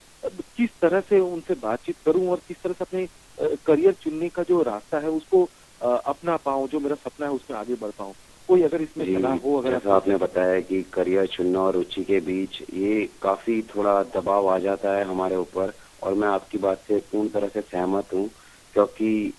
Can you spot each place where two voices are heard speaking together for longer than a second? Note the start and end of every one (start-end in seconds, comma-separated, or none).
9.0-10.3